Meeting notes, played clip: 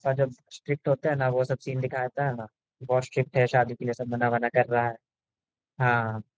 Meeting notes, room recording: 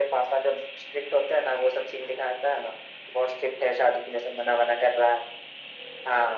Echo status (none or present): present